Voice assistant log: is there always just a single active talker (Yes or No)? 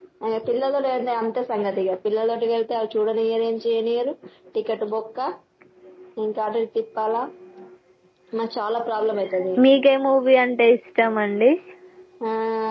Yes